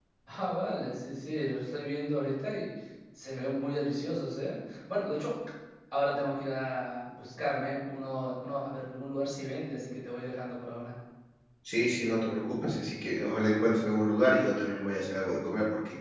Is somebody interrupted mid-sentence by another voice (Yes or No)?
No